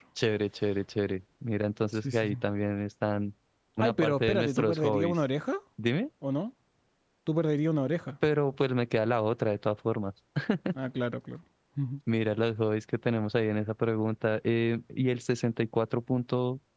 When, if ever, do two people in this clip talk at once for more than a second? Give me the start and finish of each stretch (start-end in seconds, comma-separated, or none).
3.8-5.2